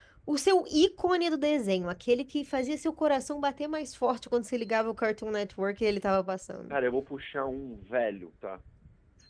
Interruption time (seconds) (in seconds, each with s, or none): none